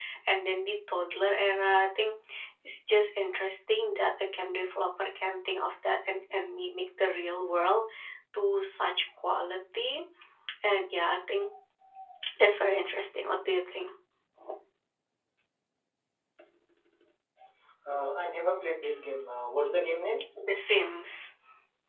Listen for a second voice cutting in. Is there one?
No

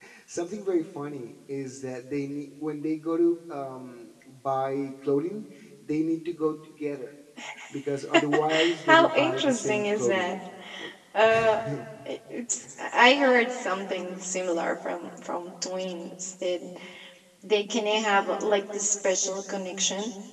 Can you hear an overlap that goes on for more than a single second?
Yes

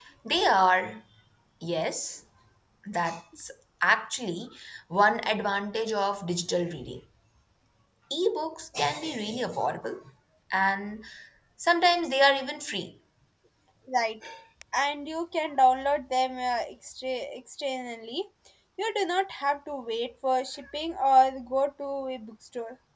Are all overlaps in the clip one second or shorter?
Yes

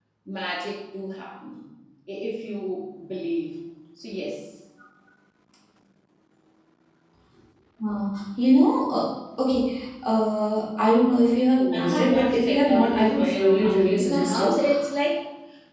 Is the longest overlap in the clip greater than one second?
Yes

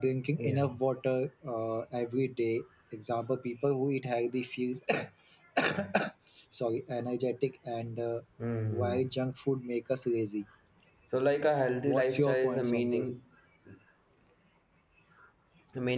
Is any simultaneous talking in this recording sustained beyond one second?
Yes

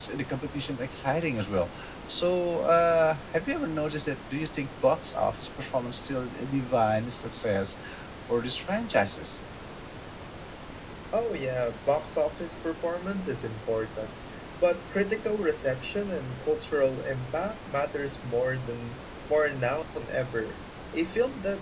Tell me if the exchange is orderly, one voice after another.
Yes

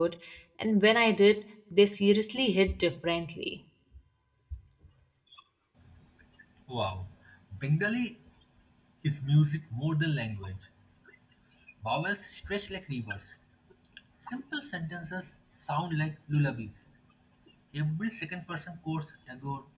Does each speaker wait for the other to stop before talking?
Yes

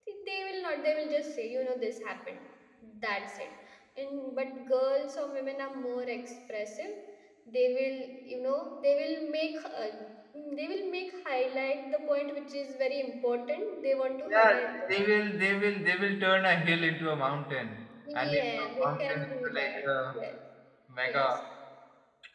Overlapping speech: Yes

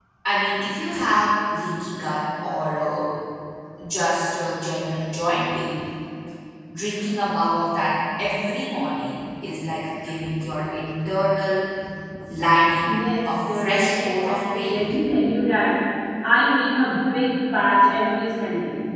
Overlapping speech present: Yes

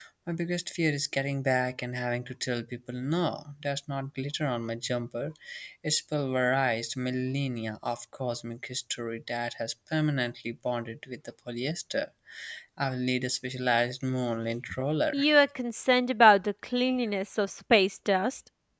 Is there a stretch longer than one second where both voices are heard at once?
No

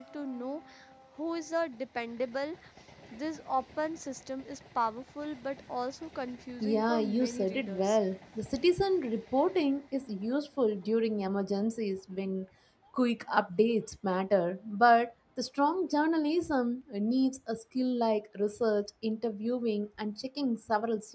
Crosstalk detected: Yes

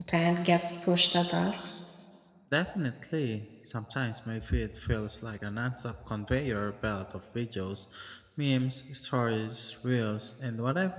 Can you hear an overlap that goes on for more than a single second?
No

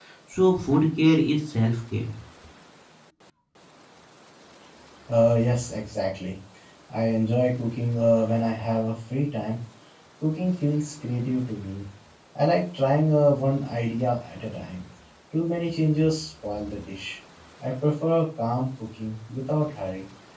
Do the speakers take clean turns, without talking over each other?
Yes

